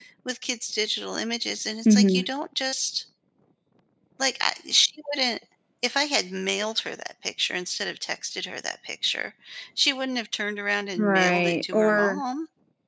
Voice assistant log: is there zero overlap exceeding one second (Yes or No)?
No